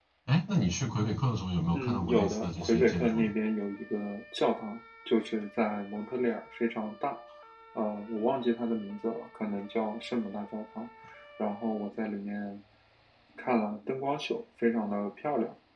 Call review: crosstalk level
present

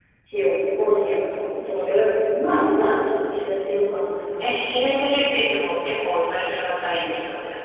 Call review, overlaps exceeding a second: none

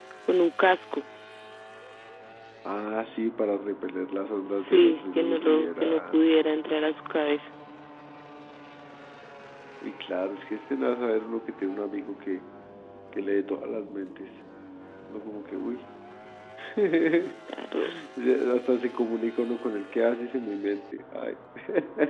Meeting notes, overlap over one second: present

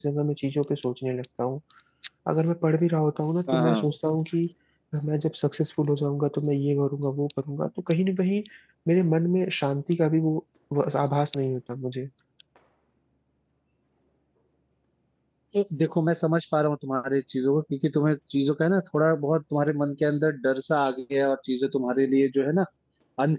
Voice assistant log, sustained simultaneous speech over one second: none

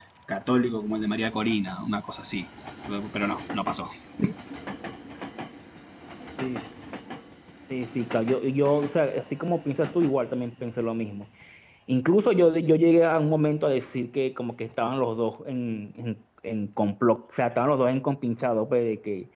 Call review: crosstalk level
none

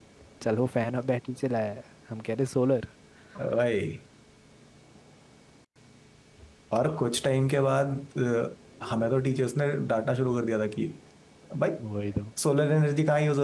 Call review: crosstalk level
none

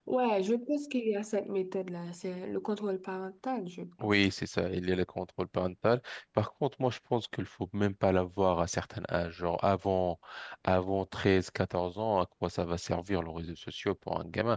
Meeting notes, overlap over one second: none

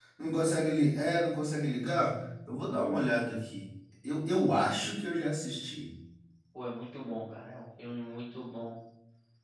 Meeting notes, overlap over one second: none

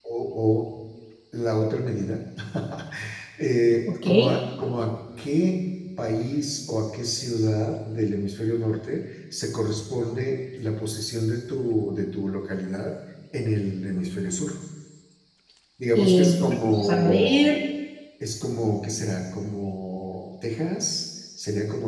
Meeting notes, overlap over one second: present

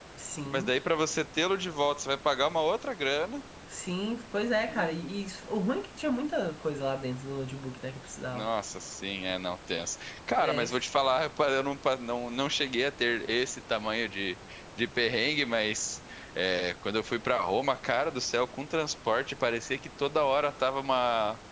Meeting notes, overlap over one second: none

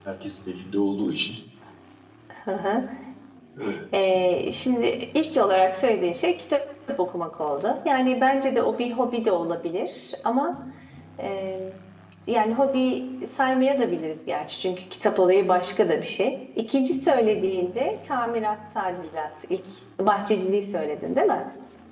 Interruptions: none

